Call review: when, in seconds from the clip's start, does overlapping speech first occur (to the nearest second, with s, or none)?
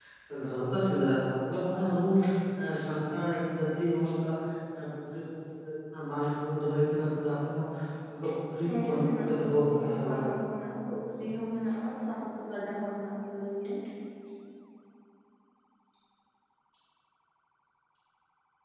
9 s